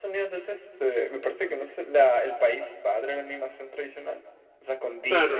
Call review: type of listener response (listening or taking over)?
taking over